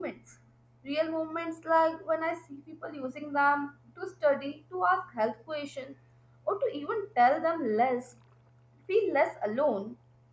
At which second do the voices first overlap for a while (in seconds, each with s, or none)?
none